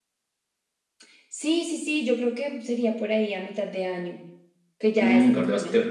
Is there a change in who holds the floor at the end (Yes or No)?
Yes